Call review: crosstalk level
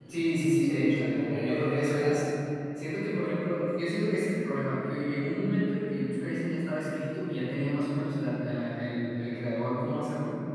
present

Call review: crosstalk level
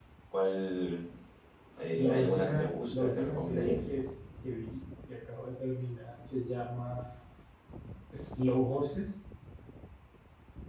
present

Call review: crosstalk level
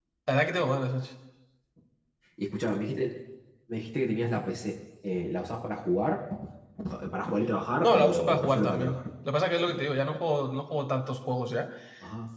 present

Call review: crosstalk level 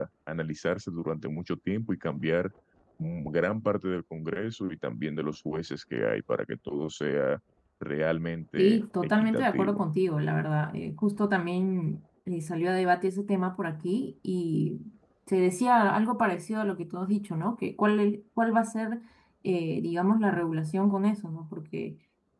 present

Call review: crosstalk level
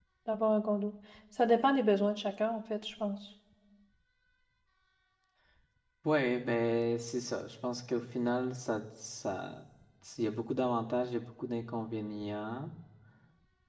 none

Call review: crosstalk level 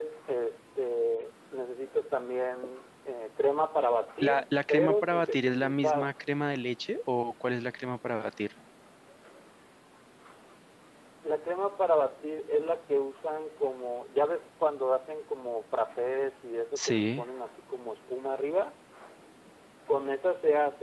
present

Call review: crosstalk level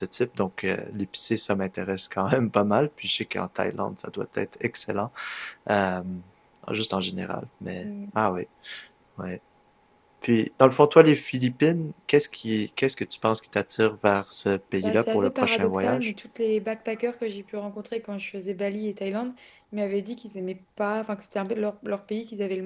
present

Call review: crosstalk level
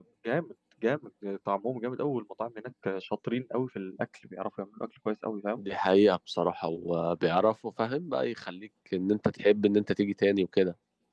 none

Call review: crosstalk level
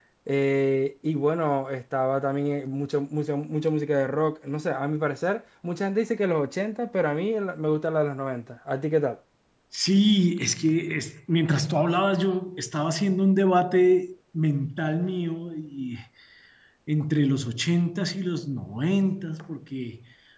none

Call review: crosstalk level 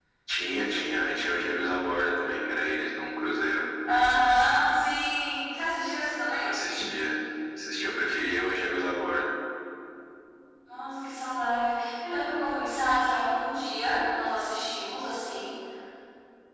none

